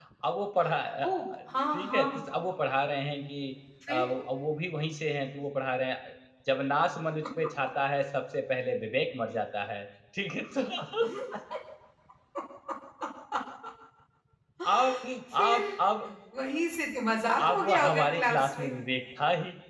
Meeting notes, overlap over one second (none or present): present